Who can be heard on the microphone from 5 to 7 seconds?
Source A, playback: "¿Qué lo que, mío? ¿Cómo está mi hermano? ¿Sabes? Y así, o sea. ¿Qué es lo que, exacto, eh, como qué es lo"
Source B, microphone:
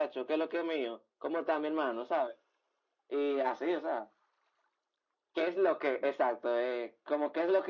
echo only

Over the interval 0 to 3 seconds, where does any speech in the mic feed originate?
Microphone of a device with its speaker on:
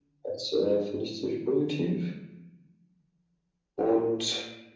echo only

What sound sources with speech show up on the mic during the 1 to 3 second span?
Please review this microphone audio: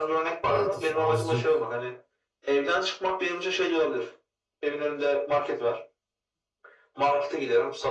both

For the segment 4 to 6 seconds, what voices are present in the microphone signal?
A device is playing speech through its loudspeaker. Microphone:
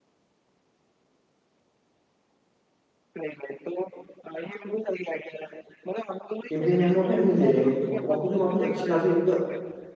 echo only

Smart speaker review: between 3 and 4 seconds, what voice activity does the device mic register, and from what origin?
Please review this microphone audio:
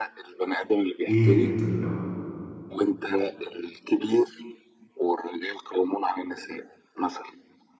echo only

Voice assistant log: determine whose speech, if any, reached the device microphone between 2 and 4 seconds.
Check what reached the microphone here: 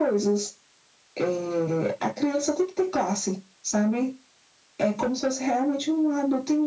echo only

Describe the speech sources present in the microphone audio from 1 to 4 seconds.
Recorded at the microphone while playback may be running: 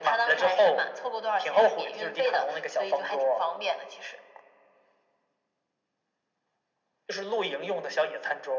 echo only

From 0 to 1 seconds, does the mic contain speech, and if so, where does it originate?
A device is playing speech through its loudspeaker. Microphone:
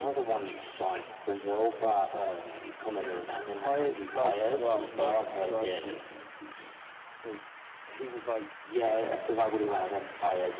echo only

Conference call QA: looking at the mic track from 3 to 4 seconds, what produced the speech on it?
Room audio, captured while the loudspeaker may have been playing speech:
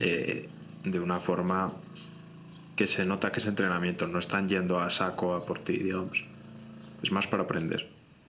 echo only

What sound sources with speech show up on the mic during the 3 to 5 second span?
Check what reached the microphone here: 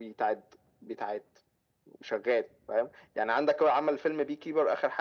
echo only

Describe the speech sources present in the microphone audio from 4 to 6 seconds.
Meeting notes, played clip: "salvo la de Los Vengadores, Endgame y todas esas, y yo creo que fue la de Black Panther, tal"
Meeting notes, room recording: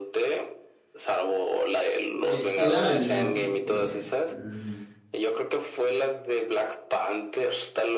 both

